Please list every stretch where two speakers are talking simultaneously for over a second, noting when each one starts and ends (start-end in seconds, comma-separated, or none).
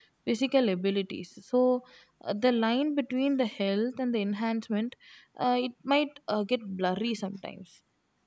none